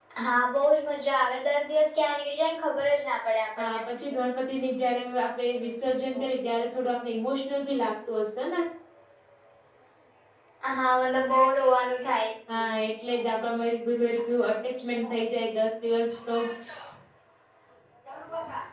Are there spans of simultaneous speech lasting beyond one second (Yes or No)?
No